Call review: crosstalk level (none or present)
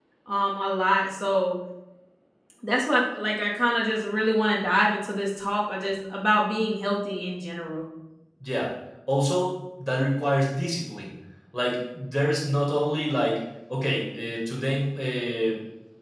none